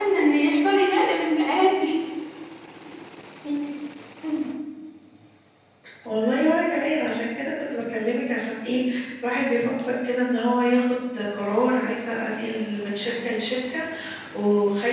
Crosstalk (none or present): none